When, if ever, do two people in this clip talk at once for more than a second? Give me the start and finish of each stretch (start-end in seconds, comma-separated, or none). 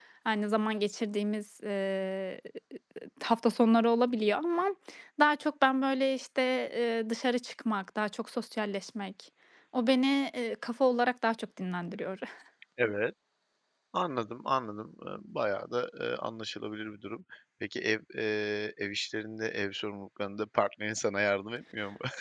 none